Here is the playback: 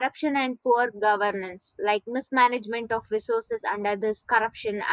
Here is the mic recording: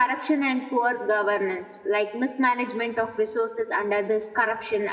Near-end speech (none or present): none